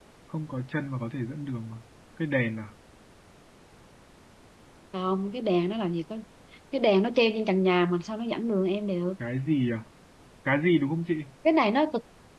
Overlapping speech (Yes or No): No